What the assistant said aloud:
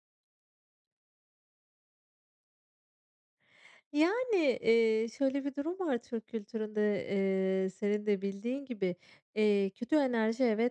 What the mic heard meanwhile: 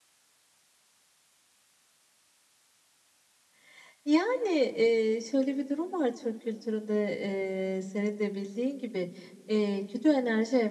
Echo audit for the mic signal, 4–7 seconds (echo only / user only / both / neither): echo only